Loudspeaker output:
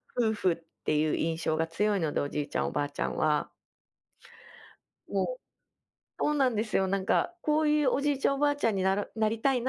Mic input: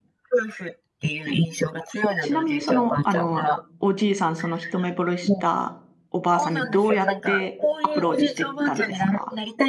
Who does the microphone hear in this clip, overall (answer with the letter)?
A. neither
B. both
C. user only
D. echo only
B